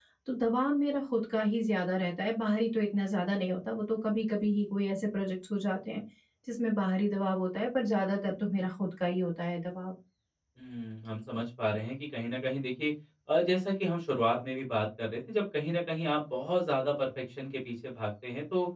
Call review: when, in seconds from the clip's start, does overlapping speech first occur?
none

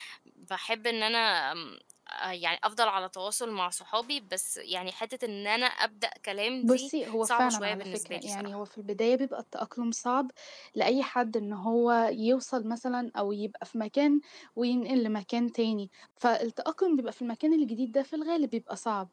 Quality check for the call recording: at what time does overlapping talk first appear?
6.6 s

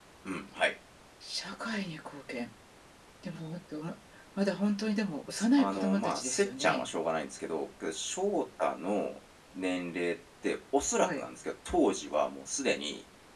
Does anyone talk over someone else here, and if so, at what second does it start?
5.3 s

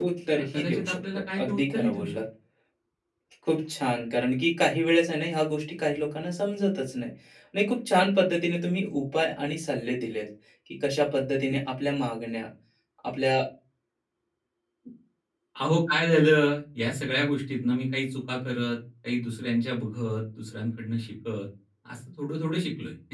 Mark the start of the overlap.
0.5 s

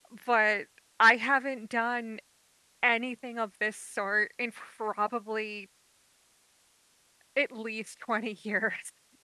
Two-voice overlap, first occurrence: none

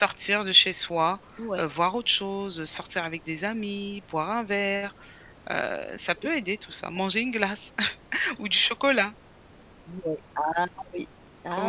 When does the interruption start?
none

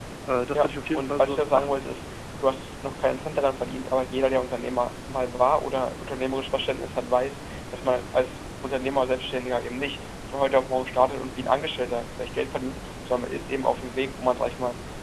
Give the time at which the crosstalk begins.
0.5 s

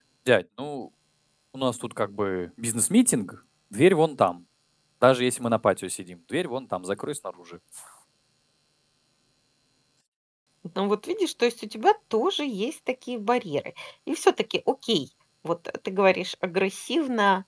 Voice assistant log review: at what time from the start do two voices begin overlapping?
none

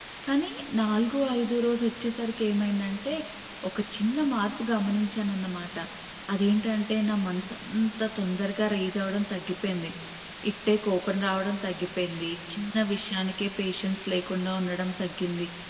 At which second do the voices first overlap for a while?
none

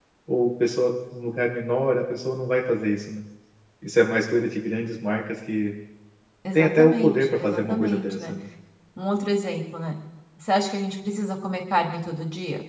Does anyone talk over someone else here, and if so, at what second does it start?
6.5 s

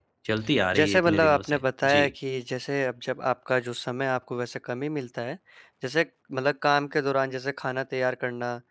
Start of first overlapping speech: 0.8 s

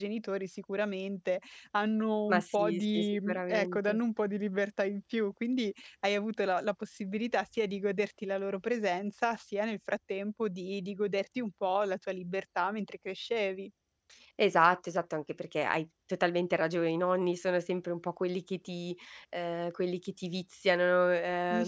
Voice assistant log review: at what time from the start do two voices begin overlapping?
2.3 s

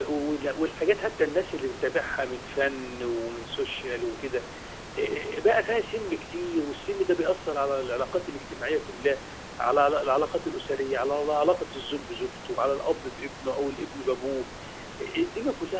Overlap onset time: none

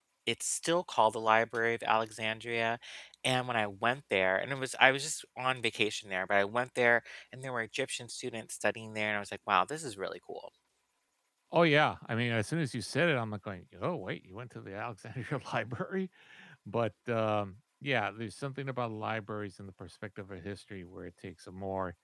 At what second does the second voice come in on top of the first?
none

